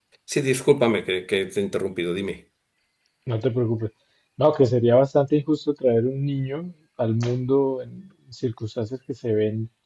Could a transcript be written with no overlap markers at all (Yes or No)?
Yes